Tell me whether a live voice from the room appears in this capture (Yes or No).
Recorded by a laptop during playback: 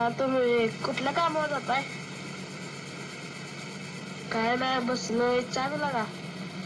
No